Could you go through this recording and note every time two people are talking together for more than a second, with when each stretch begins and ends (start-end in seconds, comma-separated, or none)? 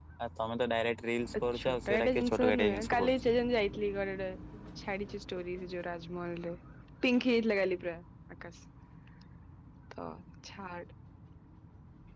1.6-3.1